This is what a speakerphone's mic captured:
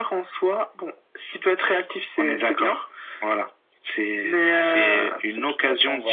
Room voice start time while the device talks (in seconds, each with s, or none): 5.0 s